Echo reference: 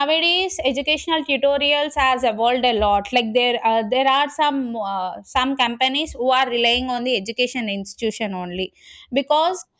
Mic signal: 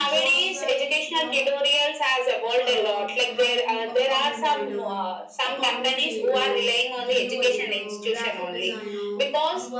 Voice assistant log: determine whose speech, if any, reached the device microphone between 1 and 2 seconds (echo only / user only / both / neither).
both